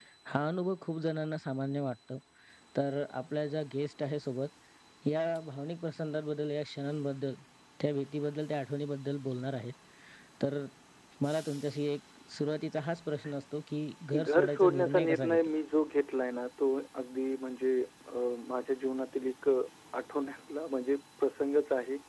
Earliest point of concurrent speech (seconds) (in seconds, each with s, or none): 14.1 s